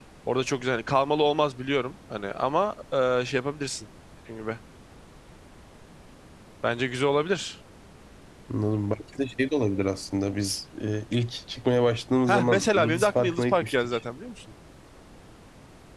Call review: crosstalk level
present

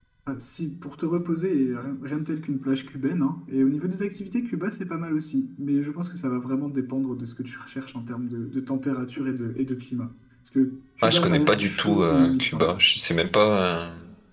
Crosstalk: present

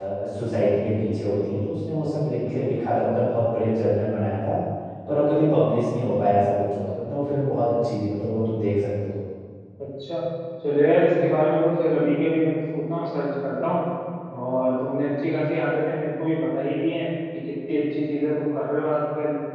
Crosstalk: none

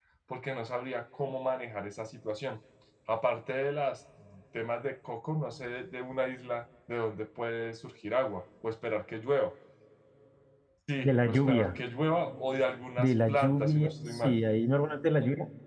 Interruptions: present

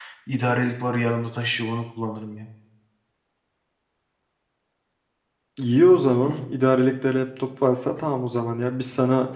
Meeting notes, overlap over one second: none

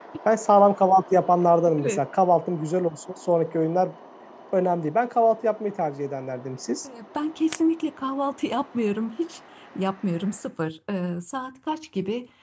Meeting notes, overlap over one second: none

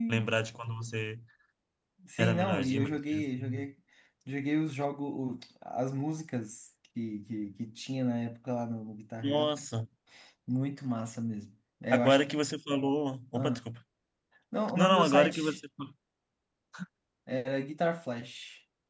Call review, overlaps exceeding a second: present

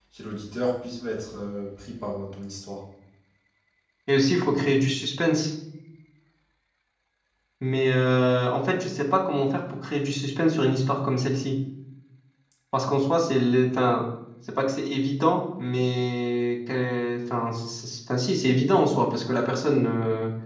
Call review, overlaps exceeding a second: none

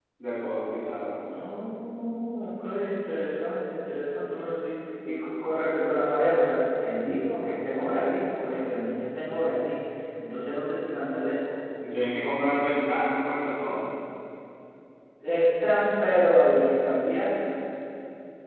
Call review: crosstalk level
none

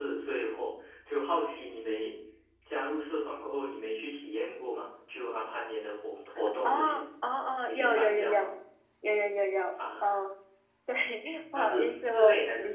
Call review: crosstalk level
present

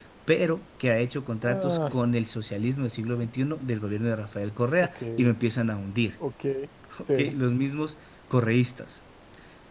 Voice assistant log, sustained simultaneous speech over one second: none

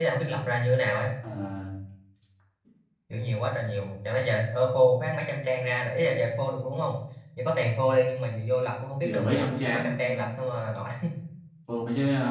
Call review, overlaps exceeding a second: present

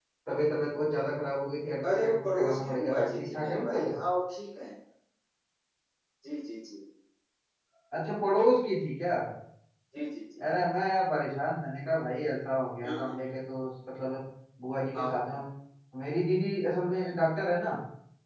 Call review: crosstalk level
present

